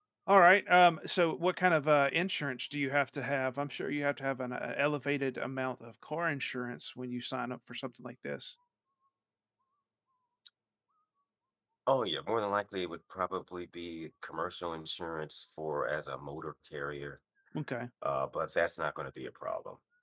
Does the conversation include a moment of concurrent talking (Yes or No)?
No